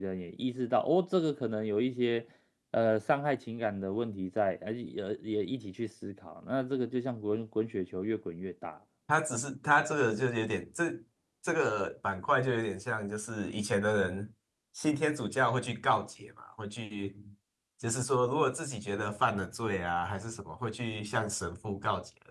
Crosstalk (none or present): none